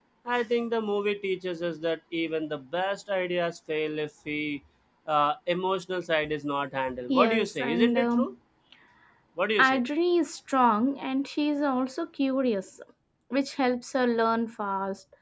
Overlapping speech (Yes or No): Yes